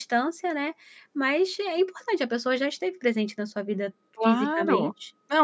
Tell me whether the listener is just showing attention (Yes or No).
No